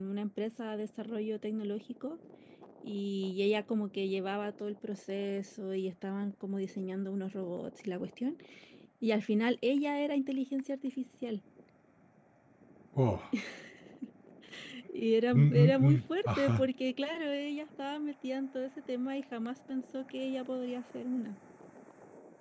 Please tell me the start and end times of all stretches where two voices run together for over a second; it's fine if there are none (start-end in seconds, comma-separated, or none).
15.3-16.7